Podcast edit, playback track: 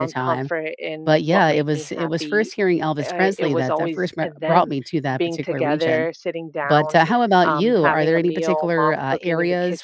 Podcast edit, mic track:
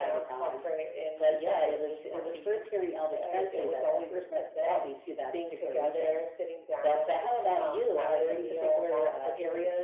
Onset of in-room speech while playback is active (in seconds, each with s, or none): none